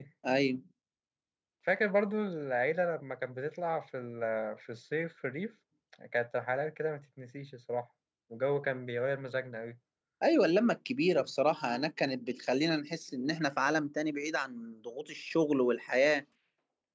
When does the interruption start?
none

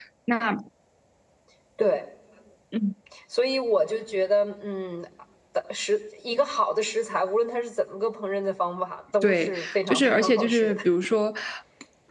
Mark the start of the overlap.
9 s

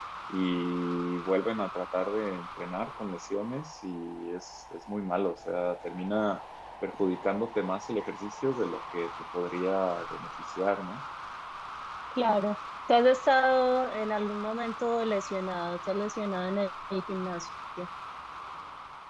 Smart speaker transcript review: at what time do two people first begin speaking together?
none

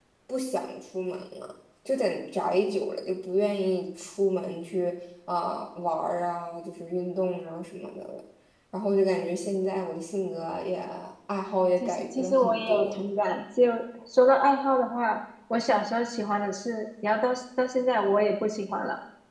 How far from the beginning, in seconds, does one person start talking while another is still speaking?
12 s

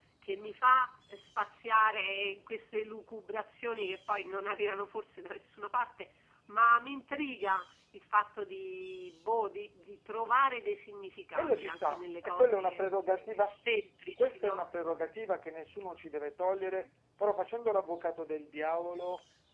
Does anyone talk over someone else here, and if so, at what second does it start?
11 s

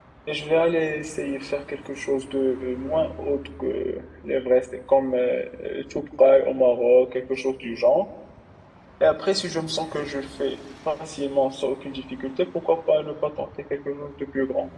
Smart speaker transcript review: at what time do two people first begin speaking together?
none

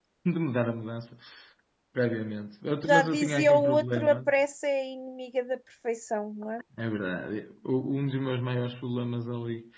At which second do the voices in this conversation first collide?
3 s

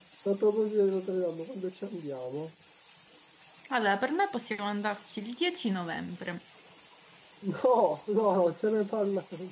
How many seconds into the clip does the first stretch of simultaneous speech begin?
none

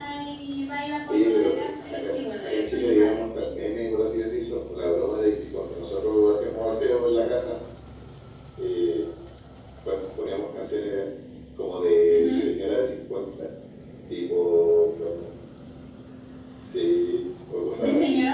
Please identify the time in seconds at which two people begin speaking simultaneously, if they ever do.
1 s

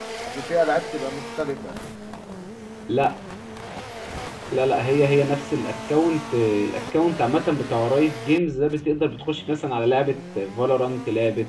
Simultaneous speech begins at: none

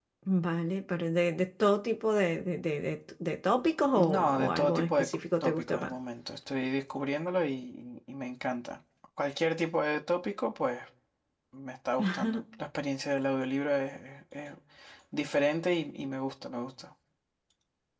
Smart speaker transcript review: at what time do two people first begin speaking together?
4 s

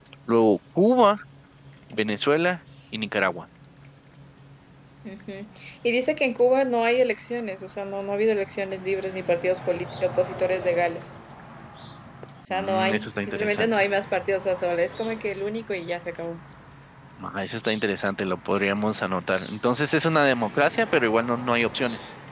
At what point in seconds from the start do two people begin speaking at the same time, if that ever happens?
13 s

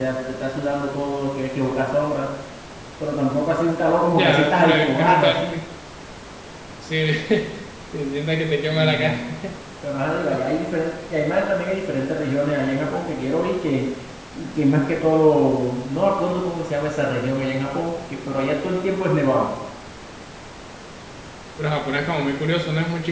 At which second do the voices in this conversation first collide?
4 s

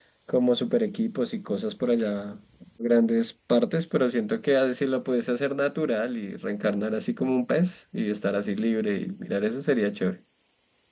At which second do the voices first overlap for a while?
none

